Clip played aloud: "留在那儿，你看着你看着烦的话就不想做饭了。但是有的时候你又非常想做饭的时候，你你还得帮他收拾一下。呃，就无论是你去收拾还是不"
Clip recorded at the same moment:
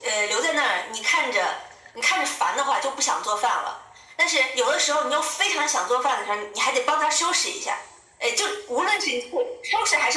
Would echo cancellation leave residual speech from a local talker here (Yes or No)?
No